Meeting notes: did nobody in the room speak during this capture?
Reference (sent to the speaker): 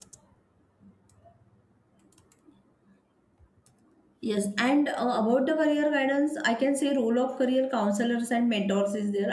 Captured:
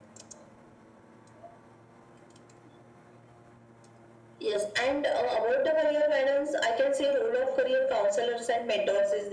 Yes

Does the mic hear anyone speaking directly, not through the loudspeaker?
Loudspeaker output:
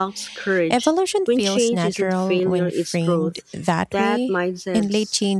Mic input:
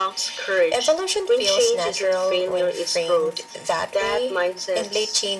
No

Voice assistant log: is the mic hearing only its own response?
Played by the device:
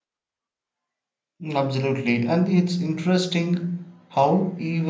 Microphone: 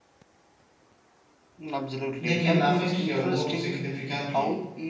No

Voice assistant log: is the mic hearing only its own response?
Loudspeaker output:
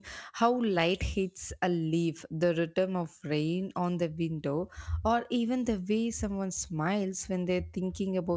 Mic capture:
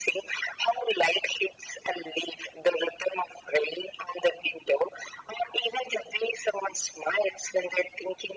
Yes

